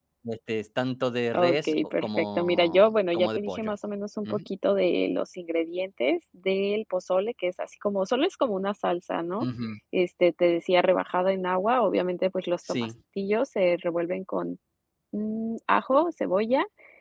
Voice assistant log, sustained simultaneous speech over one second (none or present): present